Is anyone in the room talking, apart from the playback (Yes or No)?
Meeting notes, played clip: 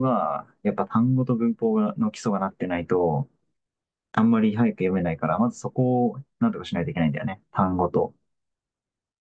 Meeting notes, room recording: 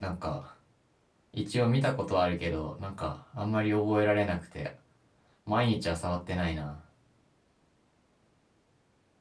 Yes